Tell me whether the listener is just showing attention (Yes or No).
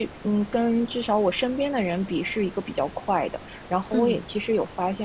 Yes